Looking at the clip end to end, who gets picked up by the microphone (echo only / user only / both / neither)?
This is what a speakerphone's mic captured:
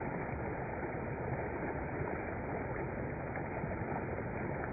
neither